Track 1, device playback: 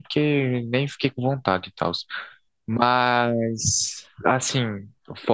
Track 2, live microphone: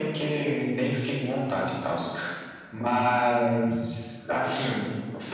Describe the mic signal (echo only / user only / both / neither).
echo only